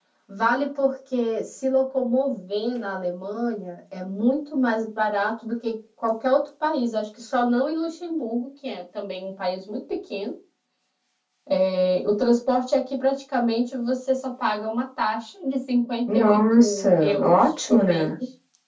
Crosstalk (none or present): present